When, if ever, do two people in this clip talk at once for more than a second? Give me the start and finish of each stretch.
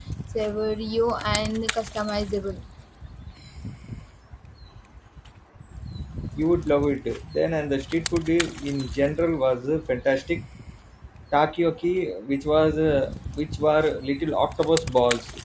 none

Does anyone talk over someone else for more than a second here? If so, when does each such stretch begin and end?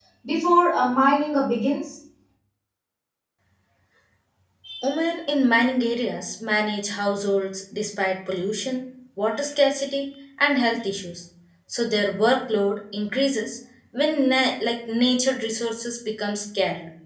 none

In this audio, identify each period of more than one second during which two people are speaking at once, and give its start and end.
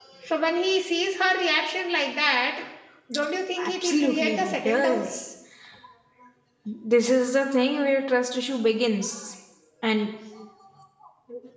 3.6-5.1

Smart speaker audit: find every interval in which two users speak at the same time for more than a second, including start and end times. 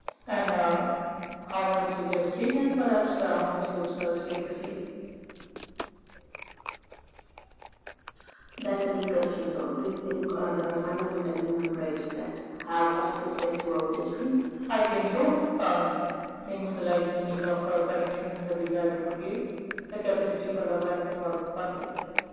none

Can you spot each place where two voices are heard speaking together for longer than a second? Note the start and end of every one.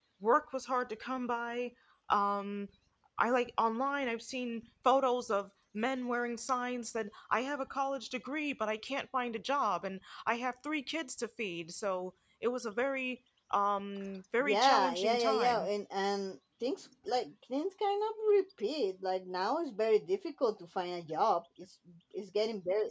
14.4-15.7

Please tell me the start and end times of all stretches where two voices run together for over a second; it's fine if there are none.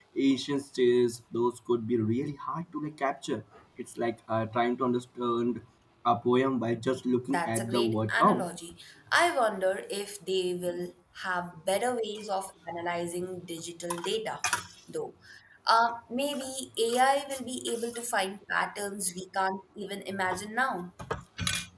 7.3-8.5

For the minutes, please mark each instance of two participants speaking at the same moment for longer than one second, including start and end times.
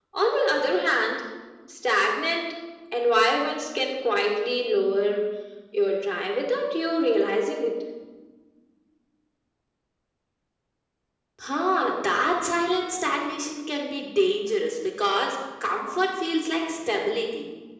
none

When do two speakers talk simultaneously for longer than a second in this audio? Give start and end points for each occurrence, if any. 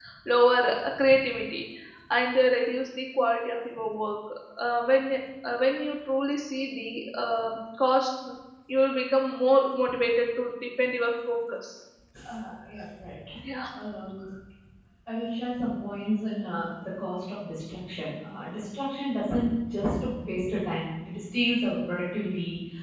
none

